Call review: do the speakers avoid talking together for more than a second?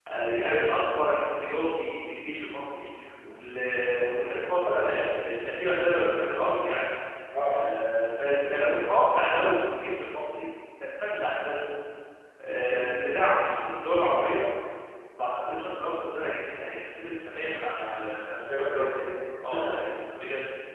No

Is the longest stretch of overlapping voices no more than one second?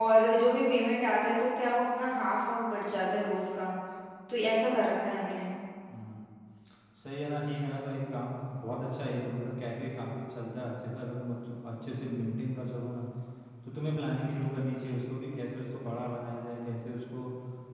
Yes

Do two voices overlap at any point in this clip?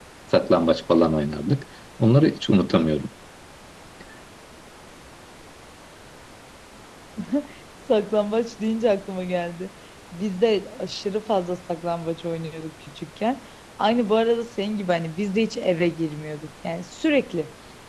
No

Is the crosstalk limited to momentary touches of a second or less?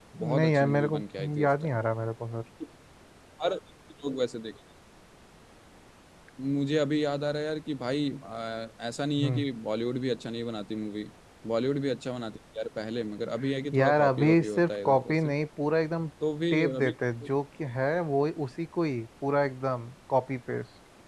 No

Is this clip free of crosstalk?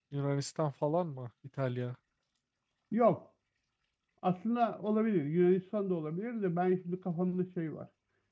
Yes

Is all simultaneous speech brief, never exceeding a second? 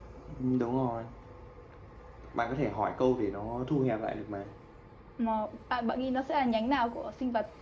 Yes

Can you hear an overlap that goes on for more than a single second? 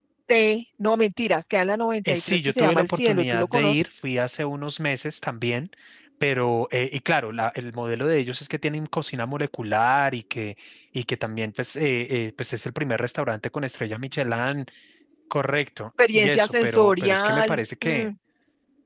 Yes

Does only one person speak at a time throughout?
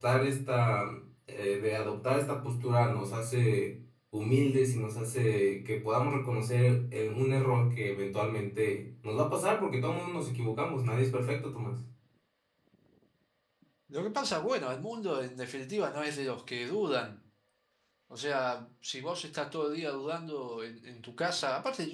Yes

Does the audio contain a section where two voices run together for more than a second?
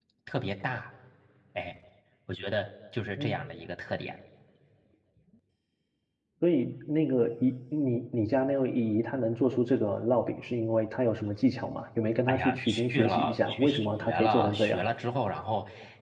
Yes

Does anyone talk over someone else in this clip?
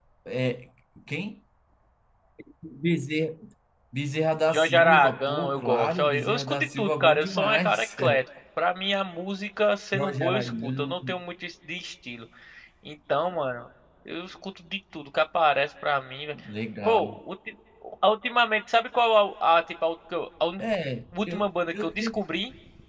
Yes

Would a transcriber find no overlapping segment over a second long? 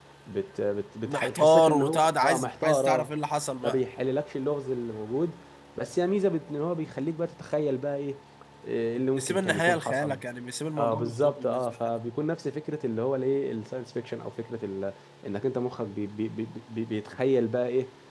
No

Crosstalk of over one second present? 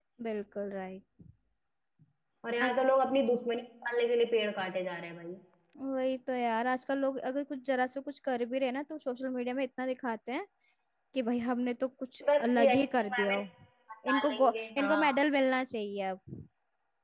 Yes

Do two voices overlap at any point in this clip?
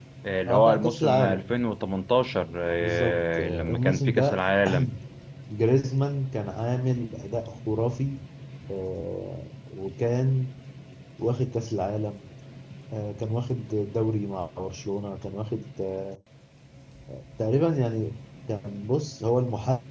Yes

